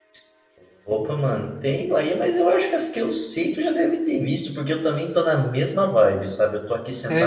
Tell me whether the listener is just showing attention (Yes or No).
Yes